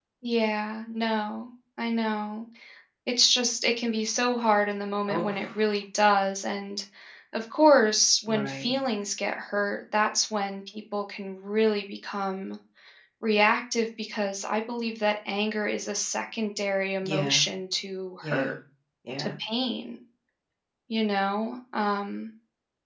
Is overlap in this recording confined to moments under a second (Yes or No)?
Yes